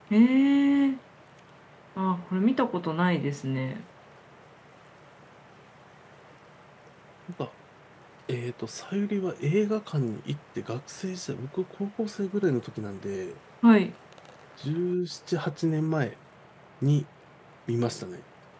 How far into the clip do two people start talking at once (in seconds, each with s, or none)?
none